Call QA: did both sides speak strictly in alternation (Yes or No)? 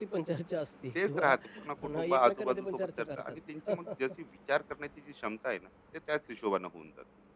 No